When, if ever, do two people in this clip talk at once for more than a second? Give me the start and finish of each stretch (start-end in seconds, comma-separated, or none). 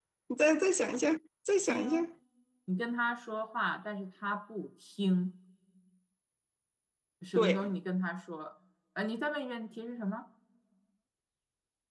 none